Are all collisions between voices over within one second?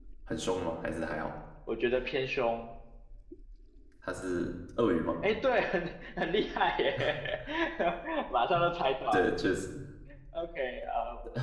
Yes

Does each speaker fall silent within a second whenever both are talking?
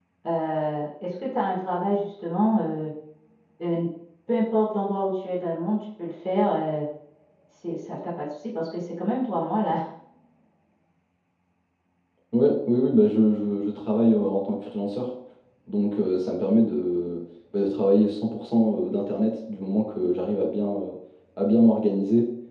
Yes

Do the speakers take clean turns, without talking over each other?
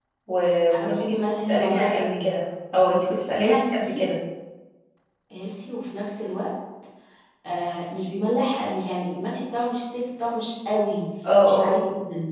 No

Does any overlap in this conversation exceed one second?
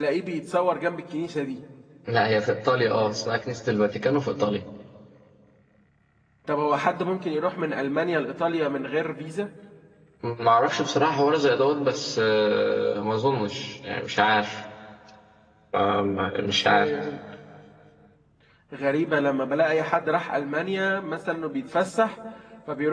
No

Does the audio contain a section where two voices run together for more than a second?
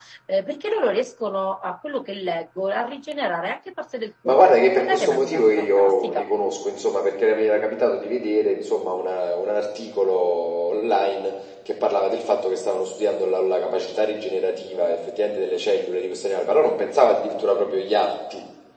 Yes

